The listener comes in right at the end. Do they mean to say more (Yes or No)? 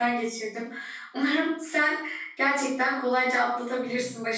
No